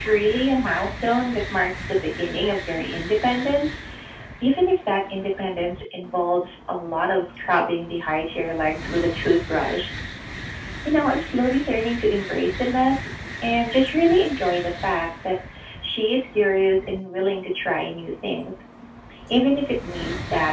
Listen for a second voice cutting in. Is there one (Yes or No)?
No